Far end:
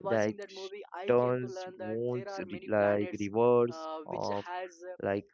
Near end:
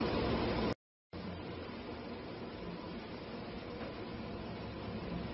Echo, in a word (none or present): none